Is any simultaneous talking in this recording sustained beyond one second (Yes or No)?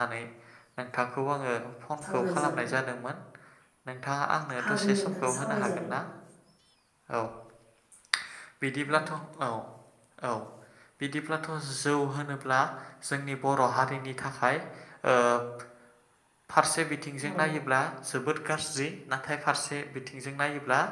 Yes